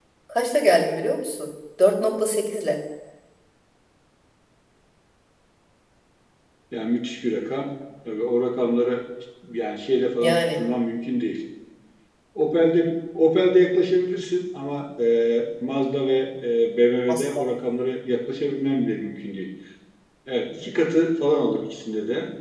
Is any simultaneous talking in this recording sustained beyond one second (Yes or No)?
No